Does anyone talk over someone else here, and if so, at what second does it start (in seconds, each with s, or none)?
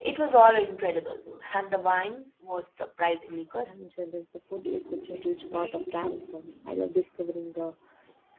none